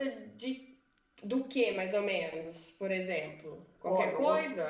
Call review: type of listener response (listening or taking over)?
taking over